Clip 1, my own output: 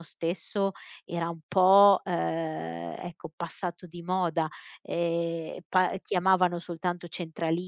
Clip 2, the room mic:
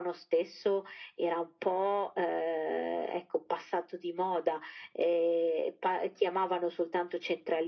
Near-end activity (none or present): none